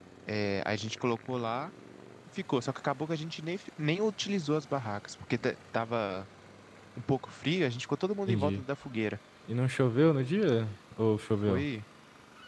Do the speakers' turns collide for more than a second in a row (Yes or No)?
No